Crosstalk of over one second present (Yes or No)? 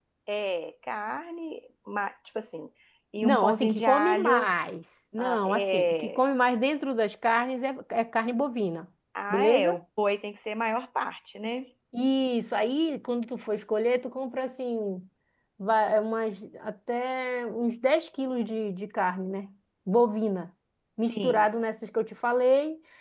Yes